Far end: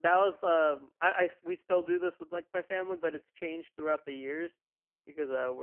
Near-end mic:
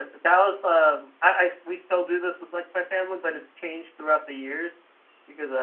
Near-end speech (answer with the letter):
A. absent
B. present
A